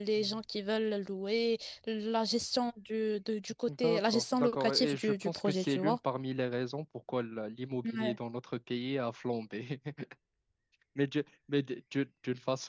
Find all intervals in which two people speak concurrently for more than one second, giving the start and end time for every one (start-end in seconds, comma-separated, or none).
3.7-6.0